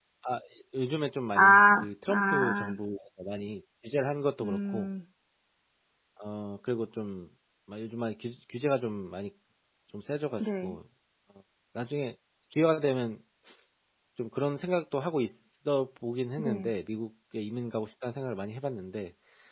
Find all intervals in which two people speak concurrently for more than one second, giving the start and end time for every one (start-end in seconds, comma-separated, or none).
1.4-2.7